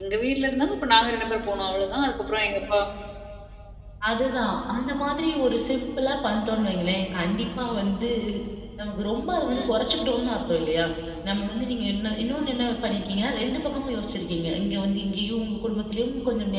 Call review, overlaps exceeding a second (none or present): none